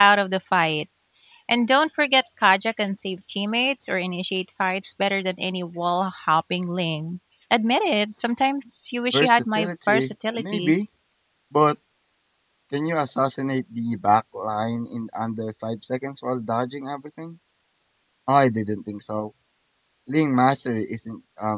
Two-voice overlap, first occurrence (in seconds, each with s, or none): 9.1 s